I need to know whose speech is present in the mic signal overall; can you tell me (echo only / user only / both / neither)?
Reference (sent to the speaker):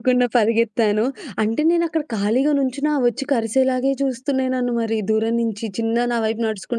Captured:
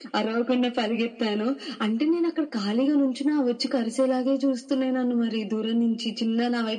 echo only